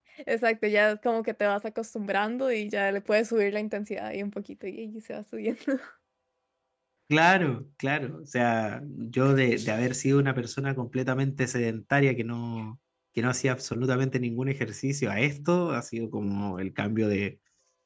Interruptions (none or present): none